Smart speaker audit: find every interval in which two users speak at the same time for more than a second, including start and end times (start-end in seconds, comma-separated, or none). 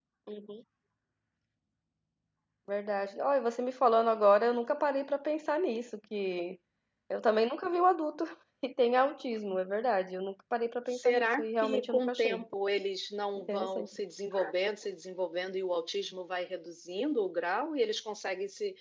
10.9-12.4